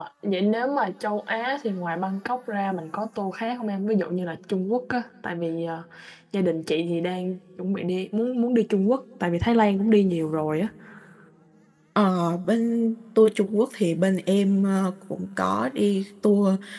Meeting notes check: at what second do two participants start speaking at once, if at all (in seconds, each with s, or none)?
none